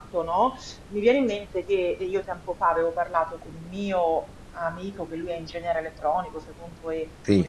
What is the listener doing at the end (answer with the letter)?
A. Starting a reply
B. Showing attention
B